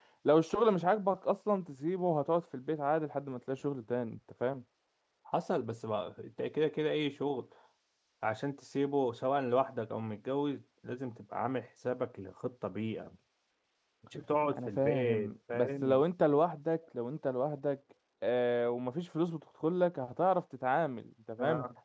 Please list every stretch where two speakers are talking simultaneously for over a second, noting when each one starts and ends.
14.7-16.0

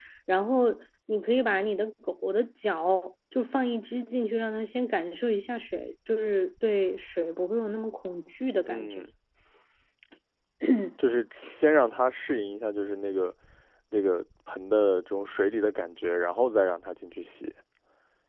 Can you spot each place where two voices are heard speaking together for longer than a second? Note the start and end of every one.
none

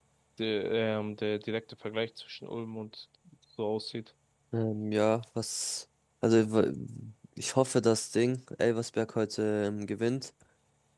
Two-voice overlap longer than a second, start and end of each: none

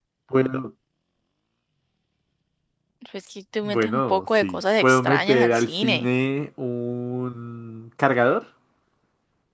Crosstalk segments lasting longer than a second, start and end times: 3.6-6.1

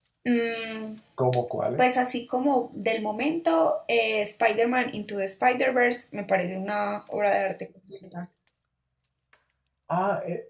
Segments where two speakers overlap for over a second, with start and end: none

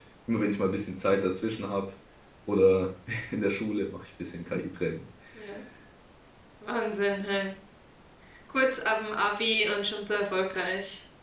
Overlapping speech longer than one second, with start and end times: none

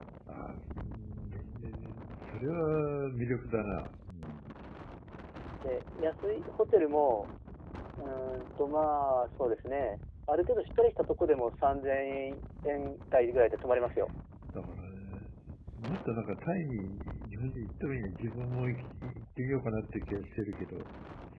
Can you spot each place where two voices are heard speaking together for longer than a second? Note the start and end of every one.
none

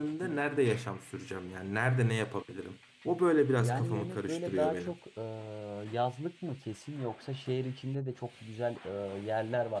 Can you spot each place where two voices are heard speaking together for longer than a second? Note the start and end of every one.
3.6-5.0

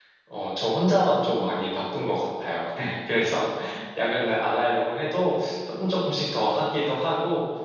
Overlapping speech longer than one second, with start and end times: none

